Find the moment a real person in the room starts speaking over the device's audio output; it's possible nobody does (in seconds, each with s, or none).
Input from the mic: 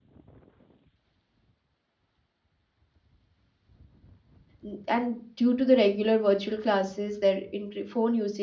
4.6 s